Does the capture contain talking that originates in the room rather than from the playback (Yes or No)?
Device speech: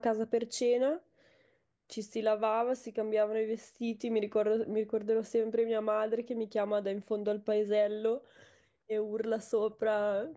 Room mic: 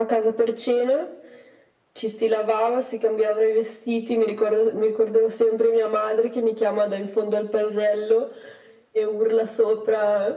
No